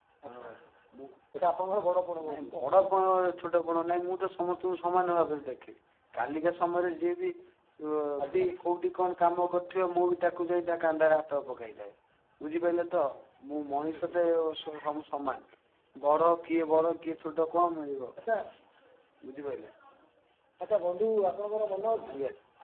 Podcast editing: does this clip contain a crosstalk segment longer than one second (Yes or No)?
No